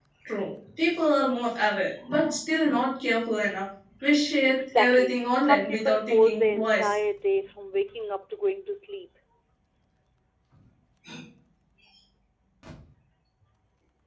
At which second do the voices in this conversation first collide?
4.5 s

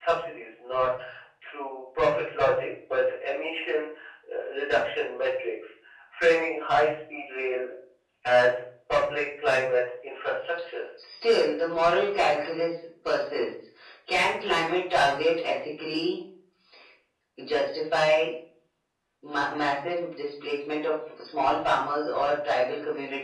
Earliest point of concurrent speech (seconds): none

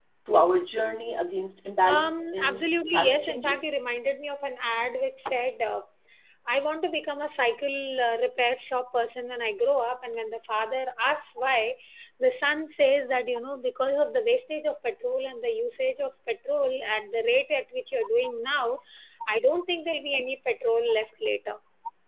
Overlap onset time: 1.8 s

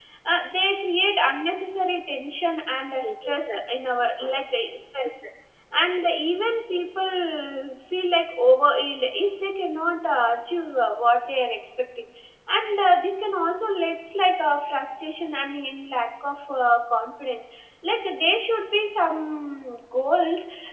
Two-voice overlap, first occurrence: 3.0 s

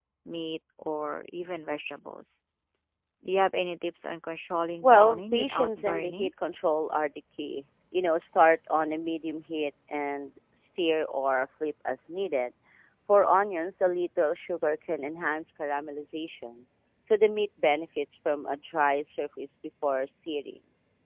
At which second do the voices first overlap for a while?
4.8 s

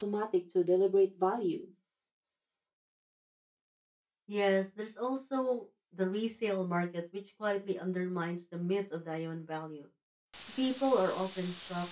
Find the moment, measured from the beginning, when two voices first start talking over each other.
none

